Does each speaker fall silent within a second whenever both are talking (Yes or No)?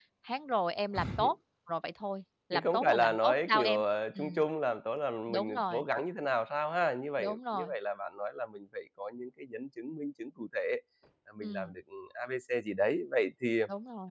No